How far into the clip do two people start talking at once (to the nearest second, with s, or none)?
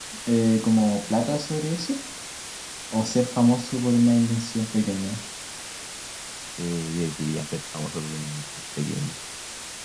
none